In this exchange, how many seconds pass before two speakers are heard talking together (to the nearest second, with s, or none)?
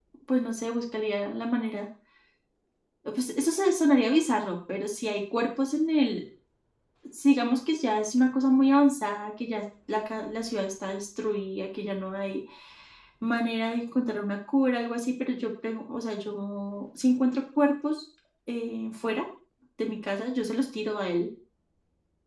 none